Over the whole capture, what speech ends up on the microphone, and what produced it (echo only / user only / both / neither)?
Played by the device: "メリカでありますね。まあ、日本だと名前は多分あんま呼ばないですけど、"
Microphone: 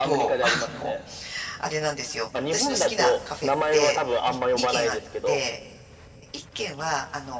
both